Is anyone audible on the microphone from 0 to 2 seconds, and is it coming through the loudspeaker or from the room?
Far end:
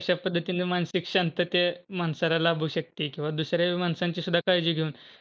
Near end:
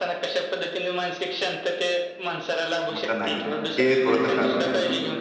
echo only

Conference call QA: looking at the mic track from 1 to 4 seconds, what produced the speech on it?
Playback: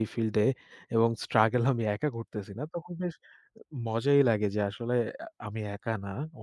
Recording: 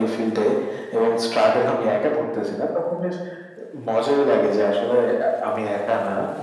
echo only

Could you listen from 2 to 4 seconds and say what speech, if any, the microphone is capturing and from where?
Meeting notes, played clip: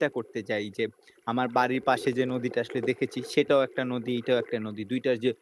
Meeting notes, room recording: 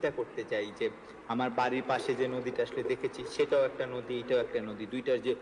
echo only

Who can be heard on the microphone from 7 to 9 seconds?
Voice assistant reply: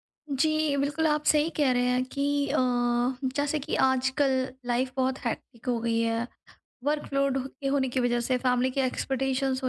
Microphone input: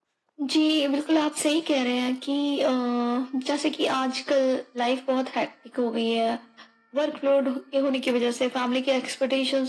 echo only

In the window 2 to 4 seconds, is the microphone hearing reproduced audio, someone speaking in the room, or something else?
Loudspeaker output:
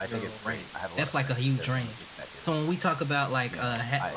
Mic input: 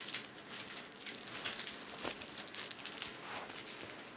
neither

